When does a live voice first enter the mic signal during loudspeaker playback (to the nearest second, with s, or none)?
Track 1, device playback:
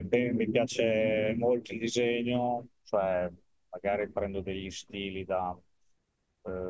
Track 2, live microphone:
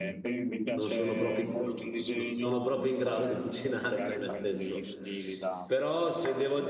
1 s